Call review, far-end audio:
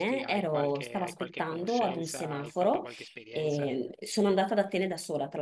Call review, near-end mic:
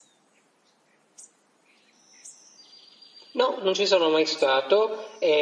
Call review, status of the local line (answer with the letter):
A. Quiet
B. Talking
B